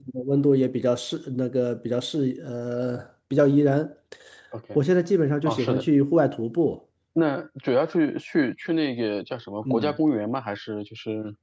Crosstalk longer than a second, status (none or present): none